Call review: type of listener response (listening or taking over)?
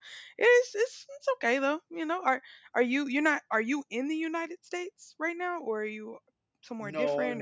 taking over